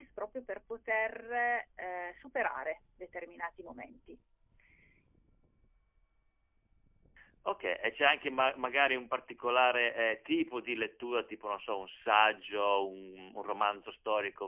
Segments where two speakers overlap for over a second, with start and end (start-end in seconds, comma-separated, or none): none